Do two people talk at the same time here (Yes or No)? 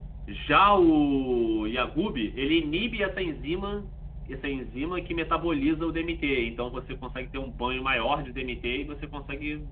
No